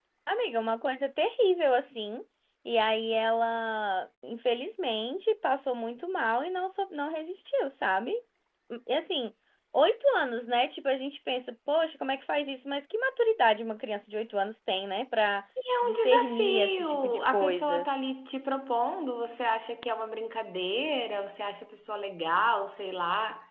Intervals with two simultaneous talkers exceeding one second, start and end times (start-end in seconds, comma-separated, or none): 15.8-17.8